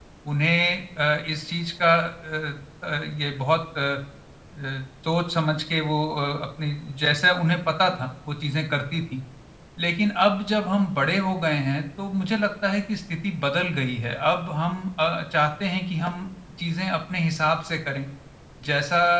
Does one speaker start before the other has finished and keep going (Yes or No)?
No